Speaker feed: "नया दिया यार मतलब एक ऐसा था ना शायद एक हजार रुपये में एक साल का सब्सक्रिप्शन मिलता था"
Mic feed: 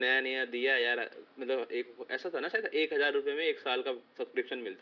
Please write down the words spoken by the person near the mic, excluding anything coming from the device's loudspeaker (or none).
none